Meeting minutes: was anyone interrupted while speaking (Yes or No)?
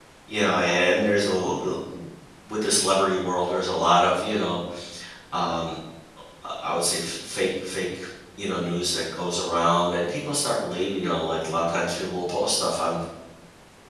No